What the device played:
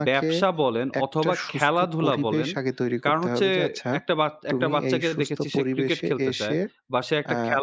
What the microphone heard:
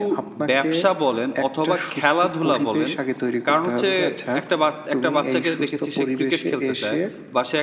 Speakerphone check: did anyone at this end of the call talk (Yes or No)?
No